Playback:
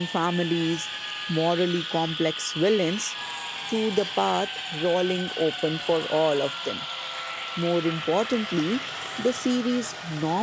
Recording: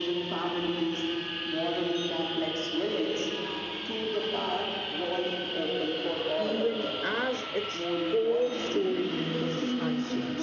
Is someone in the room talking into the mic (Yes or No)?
Yes